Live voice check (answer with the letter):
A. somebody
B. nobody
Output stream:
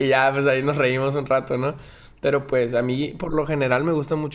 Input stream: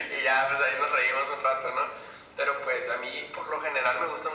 B